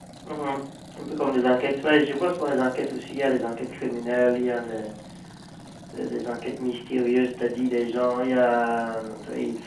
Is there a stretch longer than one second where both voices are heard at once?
No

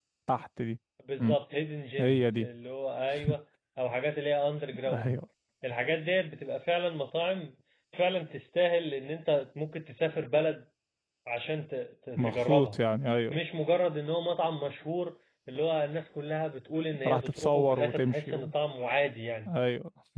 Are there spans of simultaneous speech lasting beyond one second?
Yes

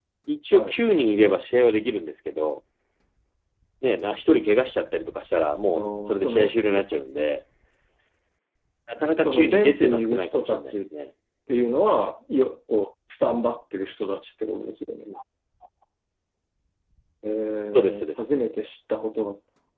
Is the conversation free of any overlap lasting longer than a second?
No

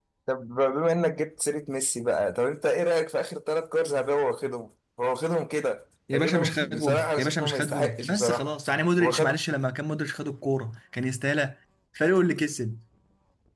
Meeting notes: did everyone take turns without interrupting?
No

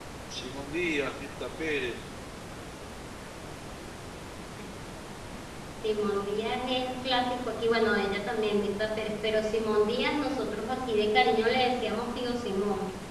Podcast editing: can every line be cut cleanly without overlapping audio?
Yes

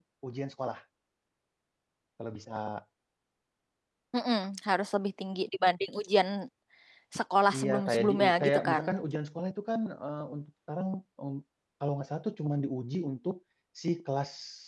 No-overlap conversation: No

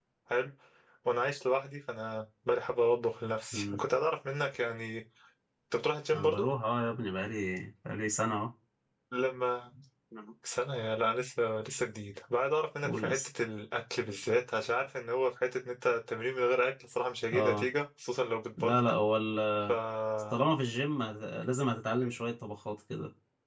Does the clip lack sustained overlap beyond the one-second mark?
Yes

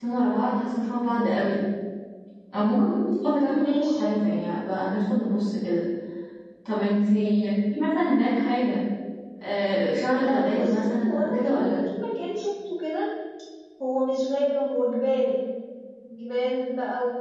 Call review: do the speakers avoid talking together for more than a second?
No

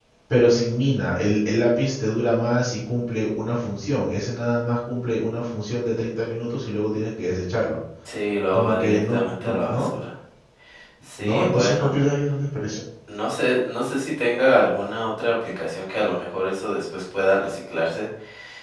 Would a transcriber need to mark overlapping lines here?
Yes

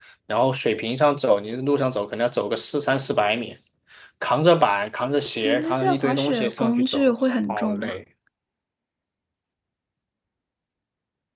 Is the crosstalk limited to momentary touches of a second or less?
No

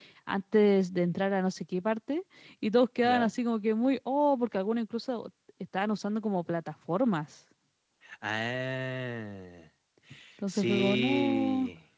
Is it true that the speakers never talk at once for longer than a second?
No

